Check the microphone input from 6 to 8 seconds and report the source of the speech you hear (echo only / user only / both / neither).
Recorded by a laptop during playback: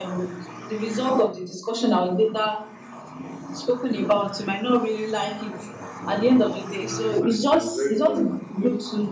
both